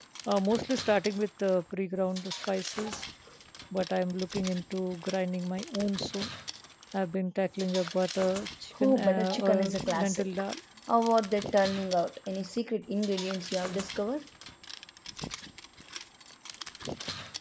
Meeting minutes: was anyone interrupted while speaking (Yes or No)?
Yes